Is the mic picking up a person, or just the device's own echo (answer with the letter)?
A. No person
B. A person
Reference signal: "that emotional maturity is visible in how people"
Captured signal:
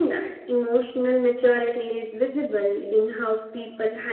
A